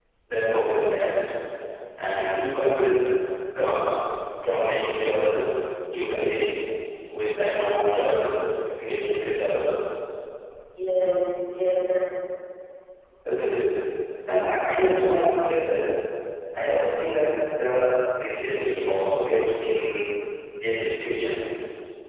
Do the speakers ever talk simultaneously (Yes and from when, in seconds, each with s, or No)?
No